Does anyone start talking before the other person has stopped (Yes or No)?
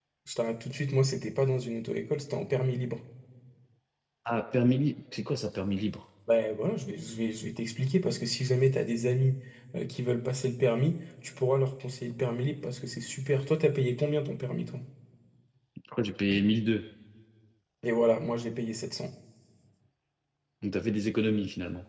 No